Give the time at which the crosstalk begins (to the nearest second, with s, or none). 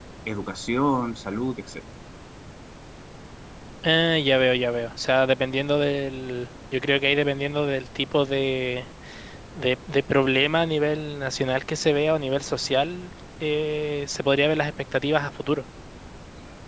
none